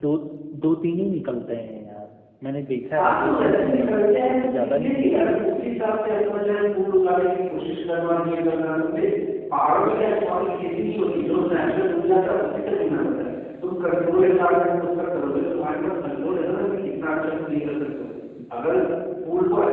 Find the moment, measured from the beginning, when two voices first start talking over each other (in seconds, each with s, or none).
2.9 s